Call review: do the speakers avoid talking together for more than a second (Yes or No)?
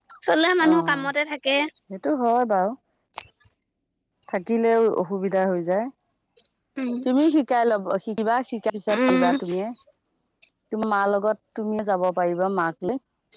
Yes